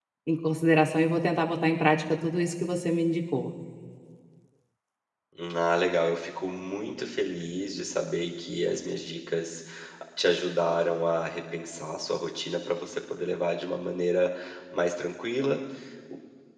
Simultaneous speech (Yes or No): No